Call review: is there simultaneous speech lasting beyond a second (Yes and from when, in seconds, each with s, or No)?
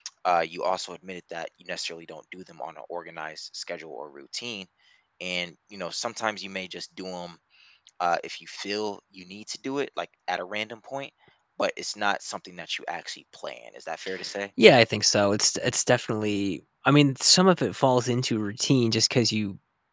No